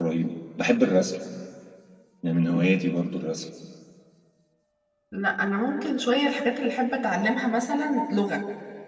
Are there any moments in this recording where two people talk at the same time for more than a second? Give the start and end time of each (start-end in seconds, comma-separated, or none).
none